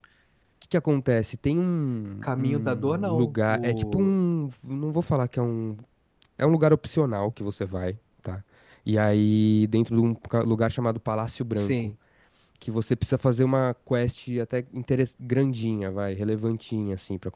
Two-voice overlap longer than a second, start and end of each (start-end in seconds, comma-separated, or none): 2.2-4.1